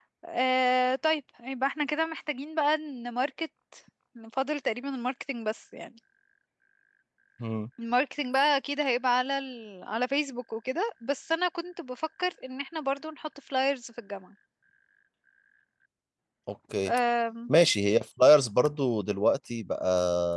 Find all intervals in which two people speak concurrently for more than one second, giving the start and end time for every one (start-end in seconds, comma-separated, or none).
none